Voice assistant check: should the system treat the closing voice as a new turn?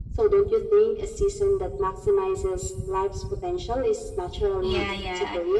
Yes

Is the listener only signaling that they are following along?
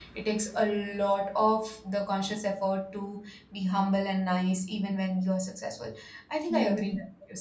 No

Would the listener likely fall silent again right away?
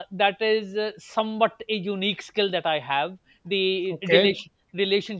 Yes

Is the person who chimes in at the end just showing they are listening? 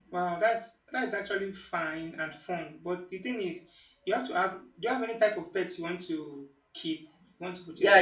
No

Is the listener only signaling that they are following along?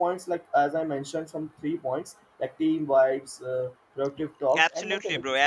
No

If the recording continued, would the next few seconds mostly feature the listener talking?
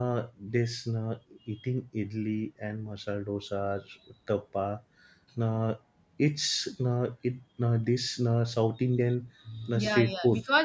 Yes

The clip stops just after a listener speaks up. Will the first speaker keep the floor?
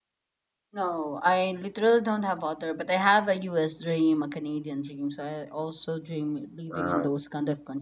Yes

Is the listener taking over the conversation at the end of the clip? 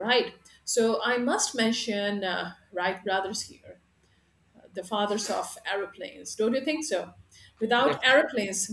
No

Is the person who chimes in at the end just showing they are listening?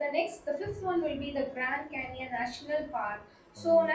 Yes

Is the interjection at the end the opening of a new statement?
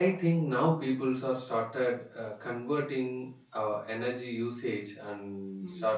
No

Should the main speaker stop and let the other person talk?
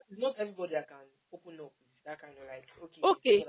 Yes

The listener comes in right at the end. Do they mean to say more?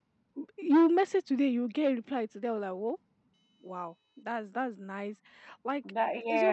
No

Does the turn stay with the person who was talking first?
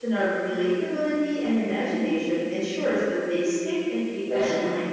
No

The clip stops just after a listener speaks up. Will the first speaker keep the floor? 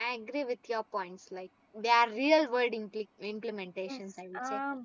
No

